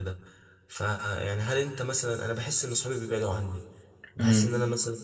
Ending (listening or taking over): listening